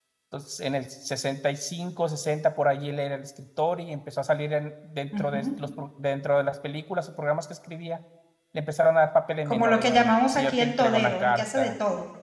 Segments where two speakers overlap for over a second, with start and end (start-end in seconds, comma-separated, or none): 9.5-11.7